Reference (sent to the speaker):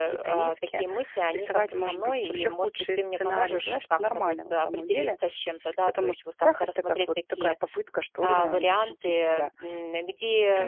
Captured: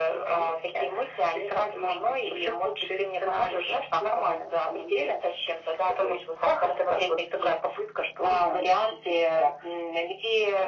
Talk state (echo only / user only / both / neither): echo only